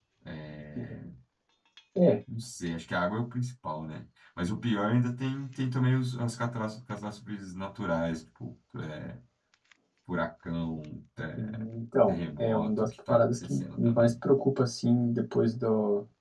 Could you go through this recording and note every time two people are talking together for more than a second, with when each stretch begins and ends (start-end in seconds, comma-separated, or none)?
12.1-14.1